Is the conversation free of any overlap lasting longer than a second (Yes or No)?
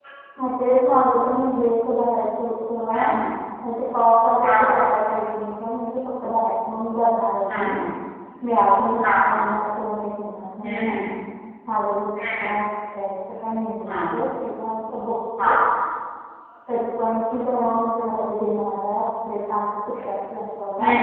Yes